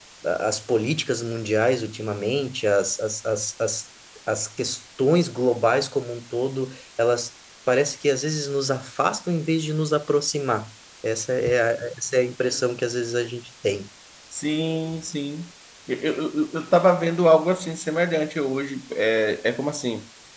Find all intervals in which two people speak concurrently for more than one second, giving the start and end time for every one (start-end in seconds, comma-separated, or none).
none